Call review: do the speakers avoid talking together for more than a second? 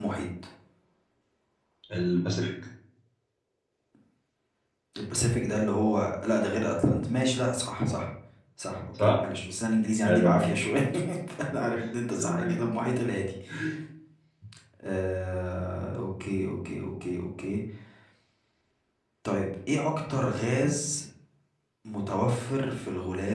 Yes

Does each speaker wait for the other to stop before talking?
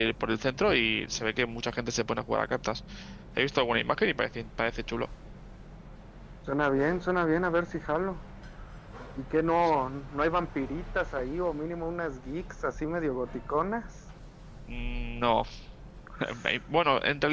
Yes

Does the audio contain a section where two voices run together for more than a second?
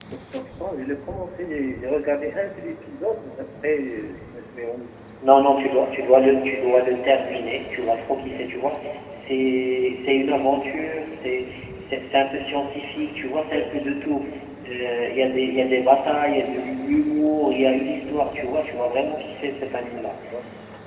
No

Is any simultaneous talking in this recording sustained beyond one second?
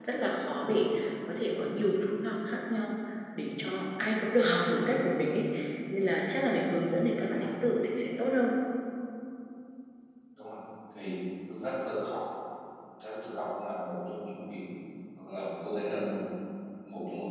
No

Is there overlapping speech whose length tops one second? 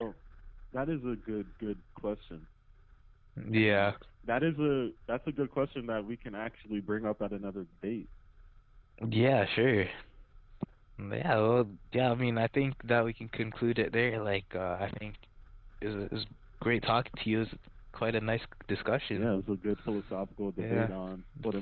No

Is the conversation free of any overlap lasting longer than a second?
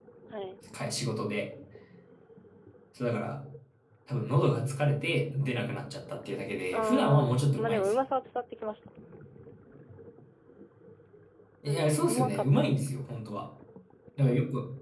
No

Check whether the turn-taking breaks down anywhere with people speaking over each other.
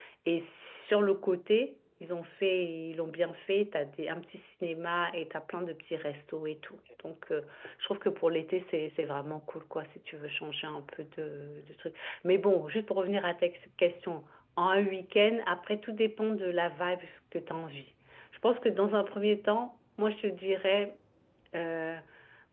No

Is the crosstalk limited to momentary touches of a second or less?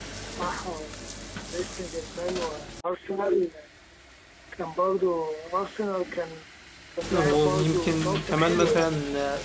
No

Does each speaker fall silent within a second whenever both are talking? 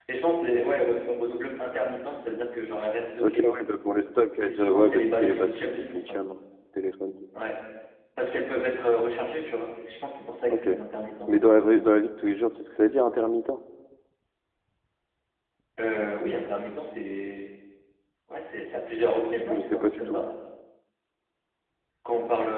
No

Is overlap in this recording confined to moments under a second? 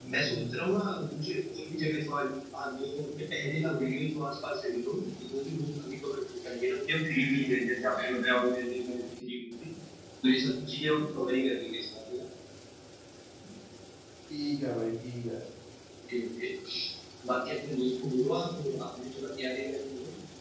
Yes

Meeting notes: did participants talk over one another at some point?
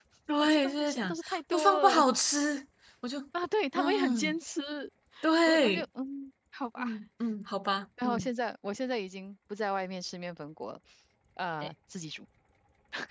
Yes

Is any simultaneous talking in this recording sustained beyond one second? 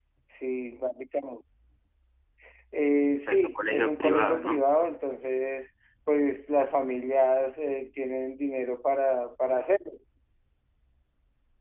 Yes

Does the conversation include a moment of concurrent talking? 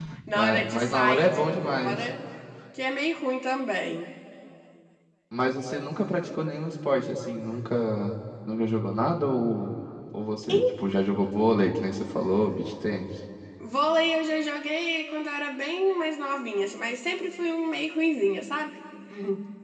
Yes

